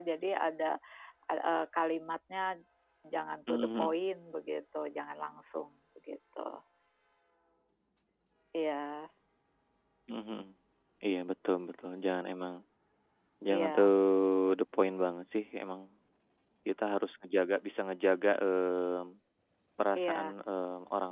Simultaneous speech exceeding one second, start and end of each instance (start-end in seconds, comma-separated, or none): none